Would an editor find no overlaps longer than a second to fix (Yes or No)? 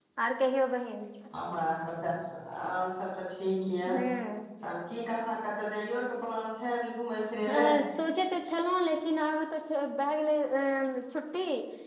Yes